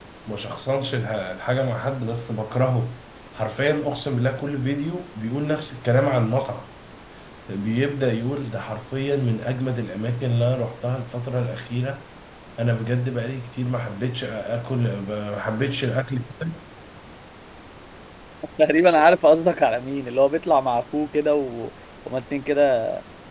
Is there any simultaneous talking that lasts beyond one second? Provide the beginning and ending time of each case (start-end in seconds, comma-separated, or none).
none